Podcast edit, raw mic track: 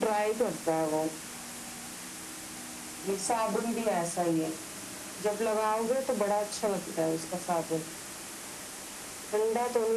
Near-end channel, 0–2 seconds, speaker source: echo only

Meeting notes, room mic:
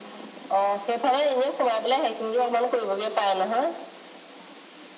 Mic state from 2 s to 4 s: echo only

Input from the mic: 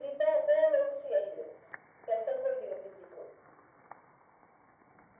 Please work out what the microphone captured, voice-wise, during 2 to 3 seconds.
echo only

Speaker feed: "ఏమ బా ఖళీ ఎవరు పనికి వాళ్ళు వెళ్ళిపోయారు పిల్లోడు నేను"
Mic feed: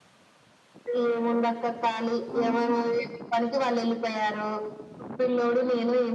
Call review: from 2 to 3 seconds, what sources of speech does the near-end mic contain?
both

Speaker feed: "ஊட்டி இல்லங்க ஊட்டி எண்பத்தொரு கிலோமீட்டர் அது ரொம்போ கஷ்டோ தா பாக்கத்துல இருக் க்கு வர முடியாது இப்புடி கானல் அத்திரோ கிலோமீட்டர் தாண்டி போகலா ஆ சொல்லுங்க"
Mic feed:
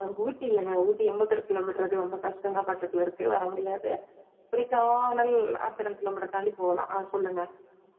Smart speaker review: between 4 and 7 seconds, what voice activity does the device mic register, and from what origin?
echo only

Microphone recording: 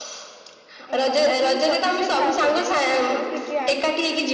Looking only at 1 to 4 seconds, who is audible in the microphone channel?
both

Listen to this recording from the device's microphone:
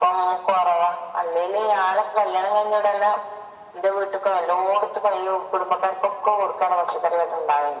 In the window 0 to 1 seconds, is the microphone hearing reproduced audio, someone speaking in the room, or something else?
echo only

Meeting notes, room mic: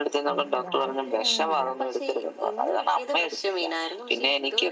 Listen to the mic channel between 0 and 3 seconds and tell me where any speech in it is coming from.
both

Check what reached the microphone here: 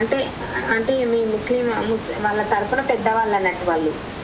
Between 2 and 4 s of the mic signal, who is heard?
echo only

